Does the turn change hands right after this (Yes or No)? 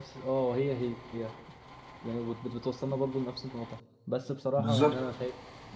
No